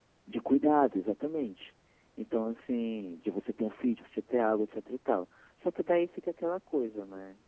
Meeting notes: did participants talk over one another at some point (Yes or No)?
No